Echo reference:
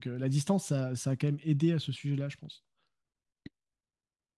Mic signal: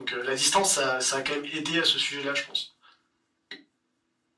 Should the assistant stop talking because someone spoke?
No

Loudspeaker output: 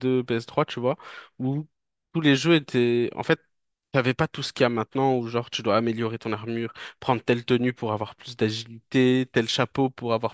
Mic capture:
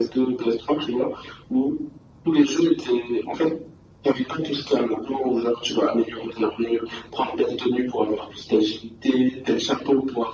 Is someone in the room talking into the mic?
No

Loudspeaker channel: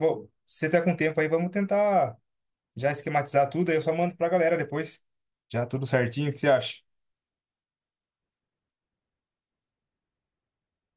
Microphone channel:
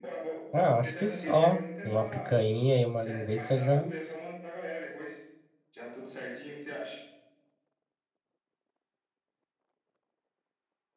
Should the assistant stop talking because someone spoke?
Yes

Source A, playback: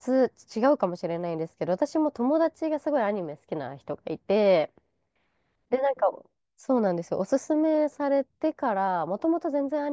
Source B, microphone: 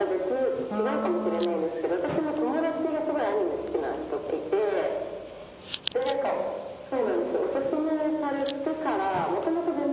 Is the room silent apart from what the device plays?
No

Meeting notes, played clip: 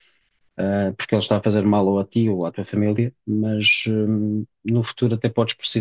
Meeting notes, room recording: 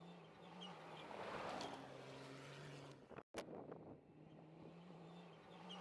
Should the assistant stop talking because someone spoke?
No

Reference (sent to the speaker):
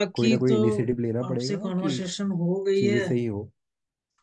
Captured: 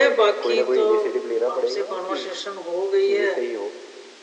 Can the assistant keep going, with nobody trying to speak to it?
Yes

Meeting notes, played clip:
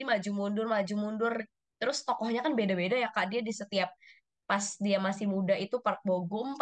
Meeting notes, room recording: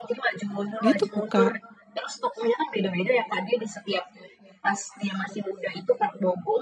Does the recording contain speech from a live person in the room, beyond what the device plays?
Yes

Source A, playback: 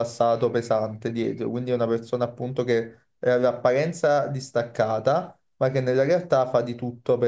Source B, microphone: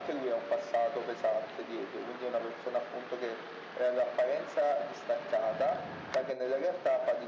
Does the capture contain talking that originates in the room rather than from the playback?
No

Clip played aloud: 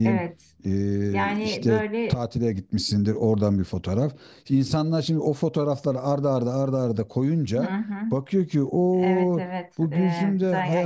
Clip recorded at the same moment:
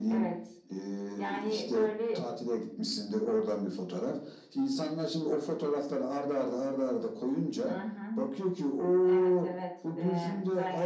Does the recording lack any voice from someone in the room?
Yes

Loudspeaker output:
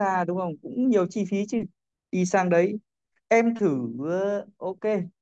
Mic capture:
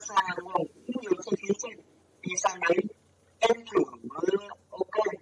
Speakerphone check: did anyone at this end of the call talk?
No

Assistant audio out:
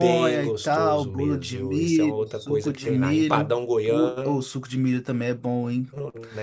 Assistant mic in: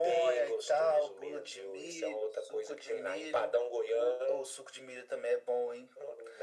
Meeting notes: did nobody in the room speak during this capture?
Yes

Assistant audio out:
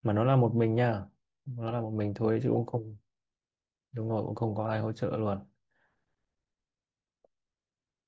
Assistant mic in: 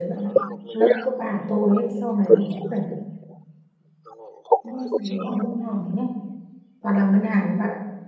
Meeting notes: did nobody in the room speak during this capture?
No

